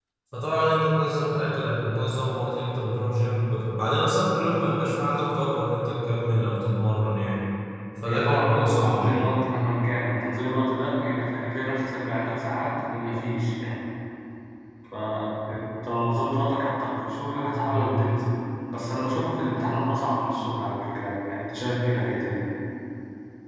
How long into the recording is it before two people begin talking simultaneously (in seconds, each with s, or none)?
8.0 s